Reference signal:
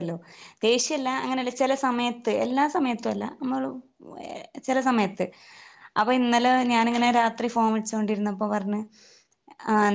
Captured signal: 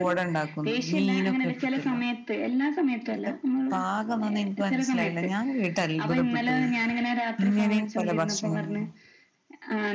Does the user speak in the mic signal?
Yes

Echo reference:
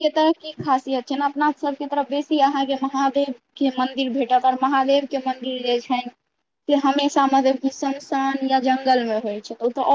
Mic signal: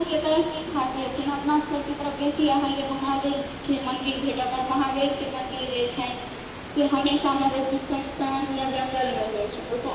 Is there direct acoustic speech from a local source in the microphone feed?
No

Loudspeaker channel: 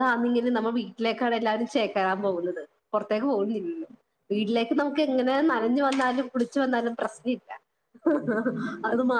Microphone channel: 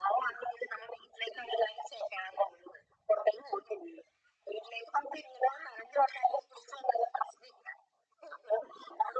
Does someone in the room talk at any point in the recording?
No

